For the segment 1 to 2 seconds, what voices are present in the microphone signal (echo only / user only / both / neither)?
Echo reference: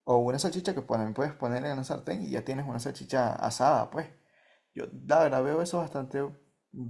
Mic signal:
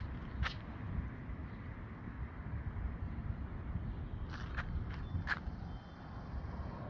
neither